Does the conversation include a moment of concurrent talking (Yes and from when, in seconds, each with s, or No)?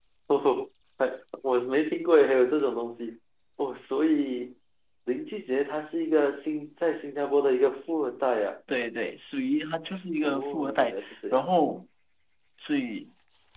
Yes, from 10.2 s